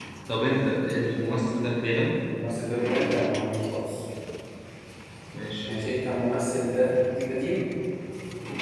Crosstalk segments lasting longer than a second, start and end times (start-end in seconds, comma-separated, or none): none